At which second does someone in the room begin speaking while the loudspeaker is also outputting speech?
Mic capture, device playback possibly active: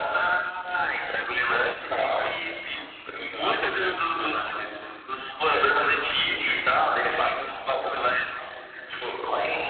none

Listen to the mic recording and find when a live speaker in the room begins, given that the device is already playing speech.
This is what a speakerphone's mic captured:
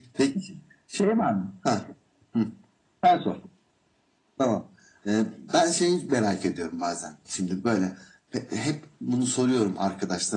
none

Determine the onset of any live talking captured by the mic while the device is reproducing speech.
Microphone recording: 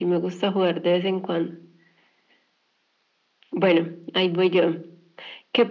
none

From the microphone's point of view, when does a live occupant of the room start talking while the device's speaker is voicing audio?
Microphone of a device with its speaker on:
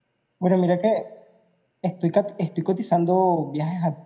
0.4 s

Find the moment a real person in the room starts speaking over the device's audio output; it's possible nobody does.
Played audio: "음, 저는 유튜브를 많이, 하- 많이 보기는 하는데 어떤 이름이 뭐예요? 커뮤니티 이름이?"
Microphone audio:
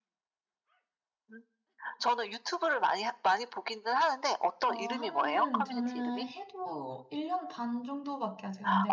4.7 s

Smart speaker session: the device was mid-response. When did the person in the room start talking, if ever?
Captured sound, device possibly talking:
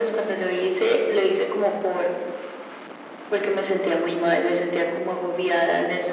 none

